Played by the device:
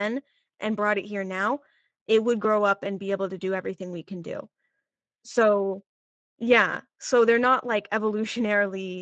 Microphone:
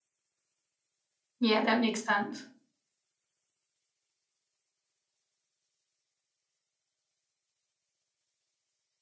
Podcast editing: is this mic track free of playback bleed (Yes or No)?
Yes